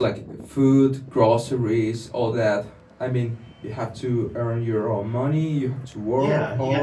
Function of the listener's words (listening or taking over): taking over